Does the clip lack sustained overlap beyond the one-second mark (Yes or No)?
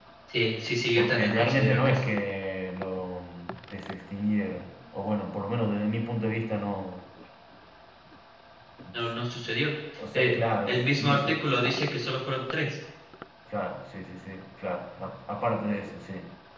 No